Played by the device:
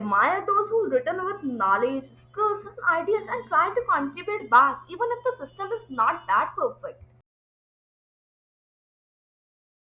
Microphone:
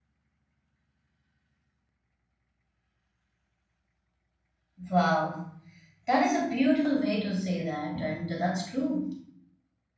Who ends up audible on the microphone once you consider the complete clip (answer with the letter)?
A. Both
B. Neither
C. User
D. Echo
C